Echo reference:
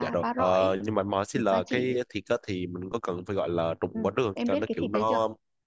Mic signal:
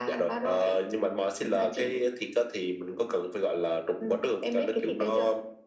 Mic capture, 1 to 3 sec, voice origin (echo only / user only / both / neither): echo only